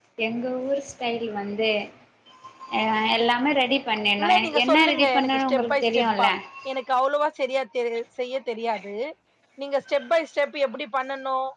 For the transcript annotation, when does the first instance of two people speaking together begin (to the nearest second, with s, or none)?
4 s